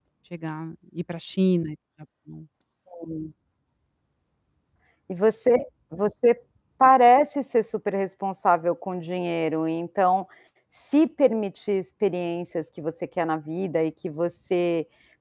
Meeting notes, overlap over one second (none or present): none